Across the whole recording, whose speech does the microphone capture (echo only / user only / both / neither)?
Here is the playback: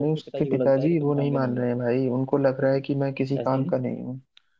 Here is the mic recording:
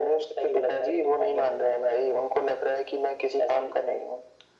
echo only